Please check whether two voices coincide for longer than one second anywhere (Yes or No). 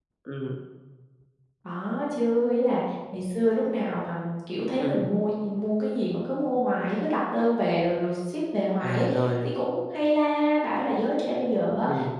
No